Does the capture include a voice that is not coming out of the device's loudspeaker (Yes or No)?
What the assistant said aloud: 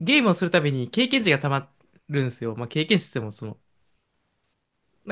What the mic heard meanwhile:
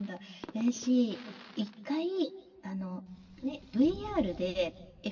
Yes